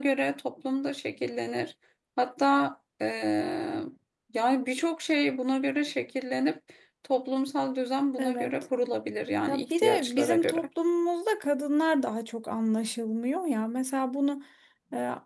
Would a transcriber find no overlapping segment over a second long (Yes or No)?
No